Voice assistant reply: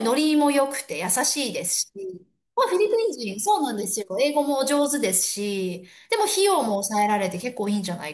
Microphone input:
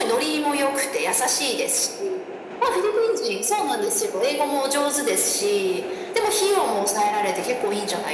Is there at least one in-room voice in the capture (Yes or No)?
No